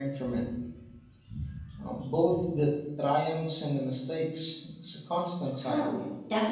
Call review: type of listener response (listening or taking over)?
taking over